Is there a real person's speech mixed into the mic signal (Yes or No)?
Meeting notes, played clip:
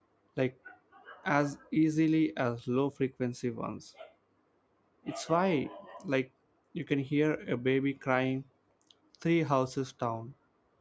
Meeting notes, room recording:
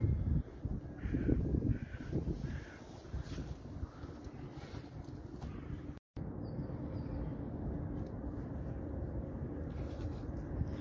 No